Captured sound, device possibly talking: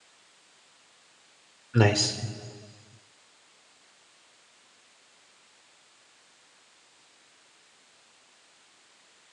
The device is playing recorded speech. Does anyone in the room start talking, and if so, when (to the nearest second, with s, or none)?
2 s